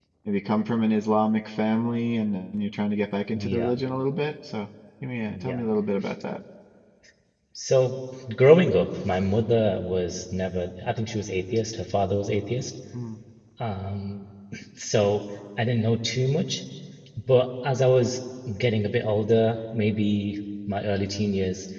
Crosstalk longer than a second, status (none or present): none